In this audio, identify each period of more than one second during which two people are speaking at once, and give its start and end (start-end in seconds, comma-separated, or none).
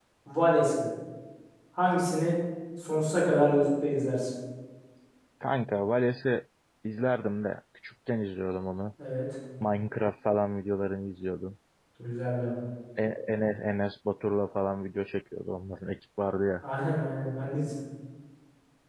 none